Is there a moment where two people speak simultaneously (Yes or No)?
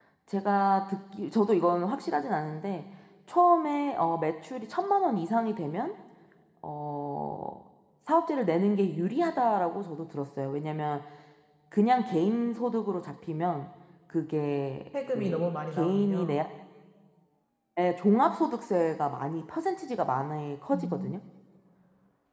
Yes